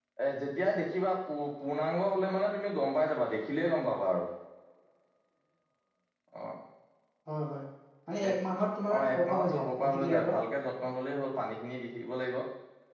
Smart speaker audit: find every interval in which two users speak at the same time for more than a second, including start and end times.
9.0-10.3

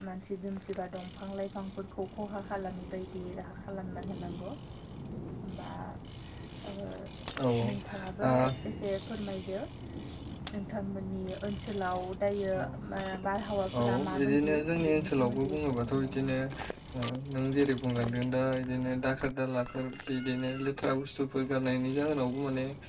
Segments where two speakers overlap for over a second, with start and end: 13.8-16.4

